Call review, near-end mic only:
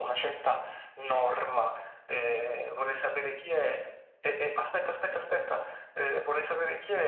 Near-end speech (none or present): none